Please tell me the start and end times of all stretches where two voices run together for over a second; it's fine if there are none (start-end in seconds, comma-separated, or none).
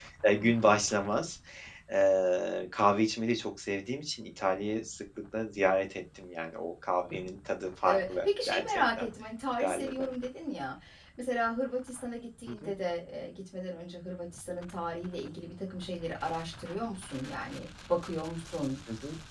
7.8-9.1